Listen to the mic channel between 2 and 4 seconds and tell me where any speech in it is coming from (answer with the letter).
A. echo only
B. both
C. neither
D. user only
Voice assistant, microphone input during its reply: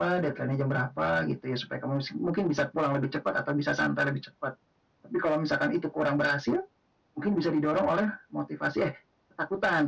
A